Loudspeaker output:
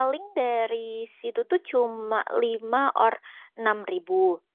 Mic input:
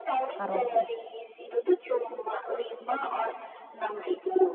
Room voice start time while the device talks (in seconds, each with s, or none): 0.3 s